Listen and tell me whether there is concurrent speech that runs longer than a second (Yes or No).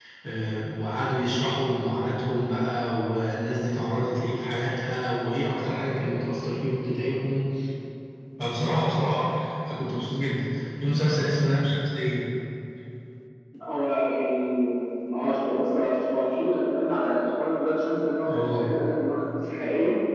No